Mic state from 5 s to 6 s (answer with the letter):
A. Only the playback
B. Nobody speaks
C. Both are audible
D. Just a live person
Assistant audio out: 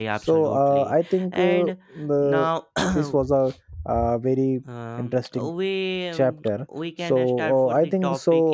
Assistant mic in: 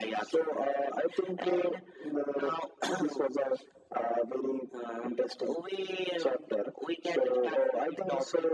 A